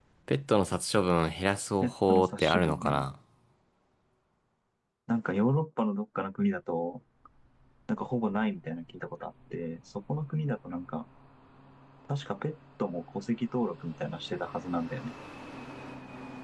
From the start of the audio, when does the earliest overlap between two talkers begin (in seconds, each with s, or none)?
1.8 s